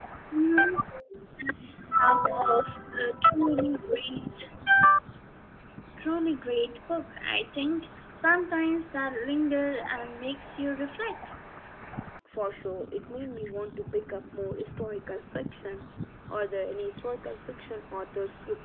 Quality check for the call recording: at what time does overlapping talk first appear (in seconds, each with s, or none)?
none